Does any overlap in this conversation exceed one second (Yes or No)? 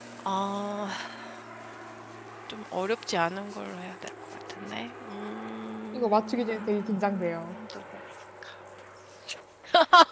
Yes